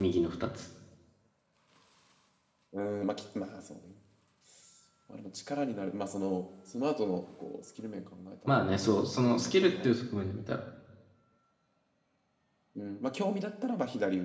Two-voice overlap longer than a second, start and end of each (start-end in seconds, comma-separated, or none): 8.5-9.9